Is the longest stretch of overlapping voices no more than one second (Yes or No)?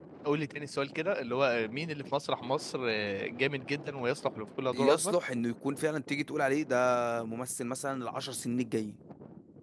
Yes